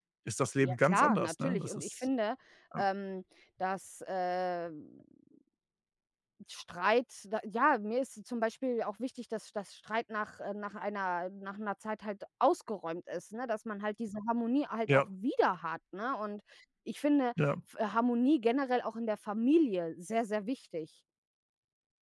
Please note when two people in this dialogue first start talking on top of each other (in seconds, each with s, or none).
0.6 s